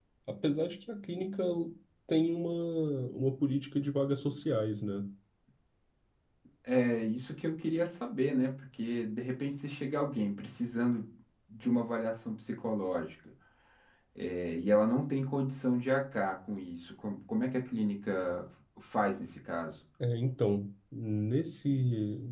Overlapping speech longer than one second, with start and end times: none

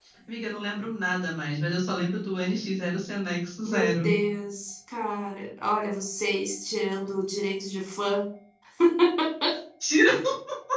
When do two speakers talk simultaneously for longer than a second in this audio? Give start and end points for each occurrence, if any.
none

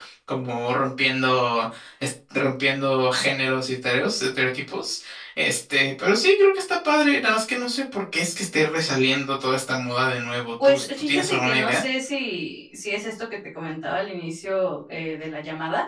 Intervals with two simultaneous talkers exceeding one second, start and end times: 10.6-11.8

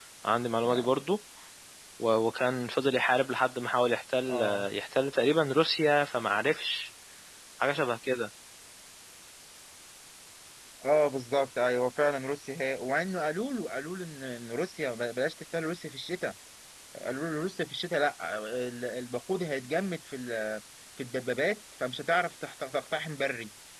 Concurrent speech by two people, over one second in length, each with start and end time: none

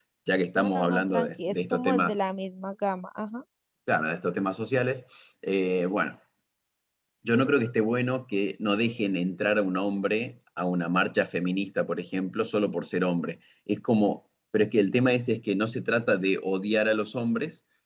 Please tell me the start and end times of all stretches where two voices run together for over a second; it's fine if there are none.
0.6-2.2

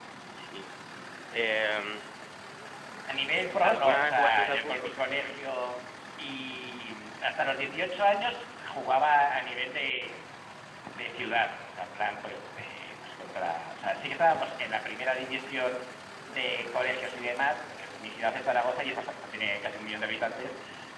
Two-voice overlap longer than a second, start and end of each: 3.6-4.9

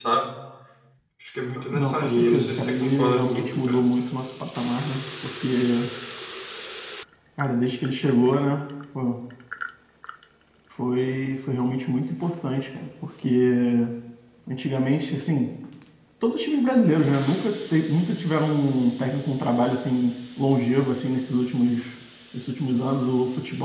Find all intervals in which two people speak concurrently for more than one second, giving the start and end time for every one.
1.7-3.8

